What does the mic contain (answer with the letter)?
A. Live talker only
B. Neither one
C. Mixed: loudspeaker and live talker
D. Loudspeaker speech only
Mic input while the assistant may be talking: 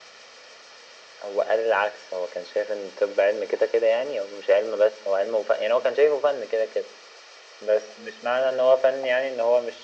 D